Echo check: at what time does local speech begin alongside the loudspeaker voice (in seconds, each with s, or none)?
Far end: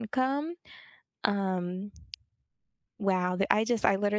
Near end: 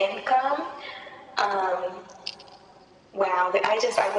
none